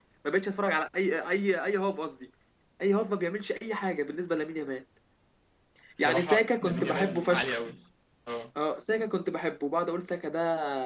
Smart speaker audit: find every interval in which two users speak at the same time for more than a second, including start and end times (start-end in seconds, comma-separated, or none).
6.0-7.6